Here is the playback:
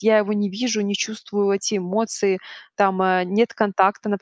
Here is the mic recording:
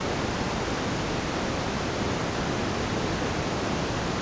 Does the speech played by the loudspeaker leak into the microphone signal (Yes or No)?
No